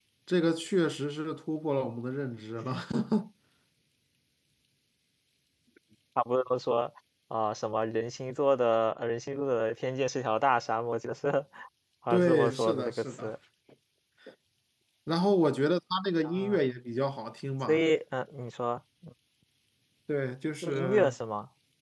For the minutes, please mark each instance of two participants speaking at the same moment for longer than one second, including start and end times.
12.1-13.3

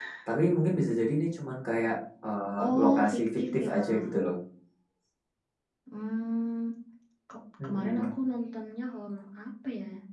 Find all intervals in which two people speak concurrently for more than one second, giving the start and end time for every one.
2.6-4.2

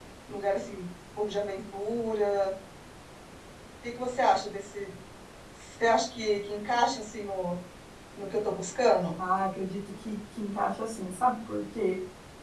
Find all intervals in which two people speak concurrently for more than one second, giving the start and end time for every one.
none

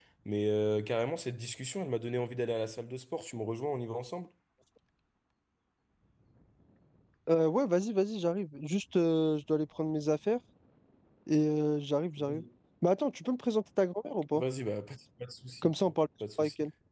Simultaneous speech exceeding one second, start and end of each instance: none

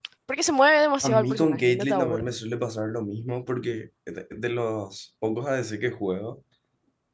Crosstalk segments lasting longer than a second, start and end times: 1.0-2.3

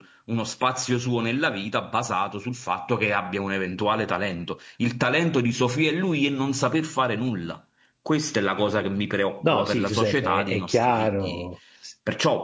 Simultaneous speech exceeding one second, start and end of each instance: 9.4-11.4

